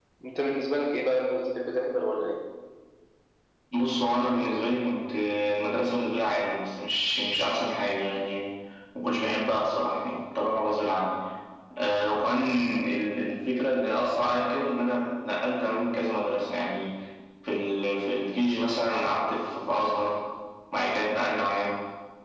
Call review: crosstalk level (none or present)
none